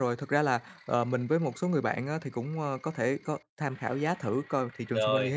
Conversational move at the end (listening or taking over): listening